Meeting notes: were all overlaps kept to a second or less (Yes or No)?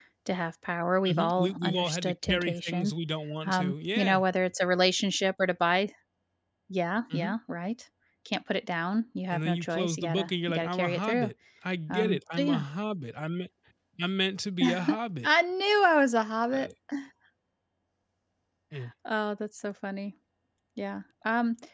No